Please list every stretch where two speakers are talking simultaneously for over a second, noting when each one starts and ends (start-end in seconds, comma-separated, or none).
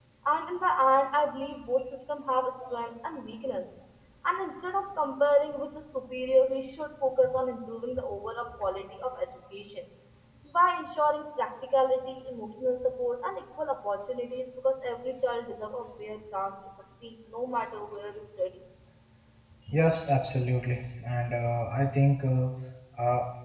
none